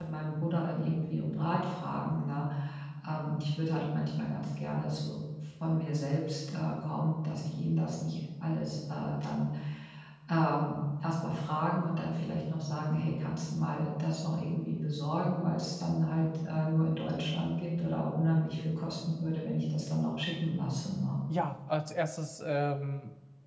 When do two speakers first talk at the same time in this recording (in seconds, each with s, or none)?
none